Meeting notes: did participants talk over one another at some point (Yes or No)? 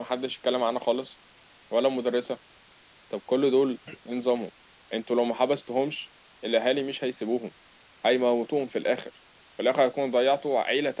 No